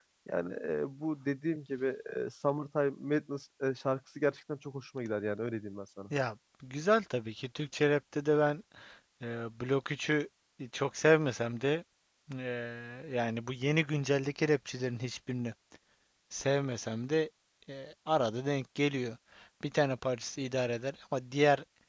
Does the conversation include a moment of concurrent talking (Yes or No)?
No